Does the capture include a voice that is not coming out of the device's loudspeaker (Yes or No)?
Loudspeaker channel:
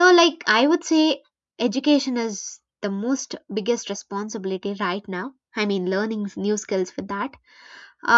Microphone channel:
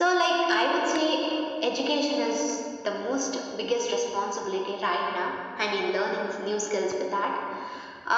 No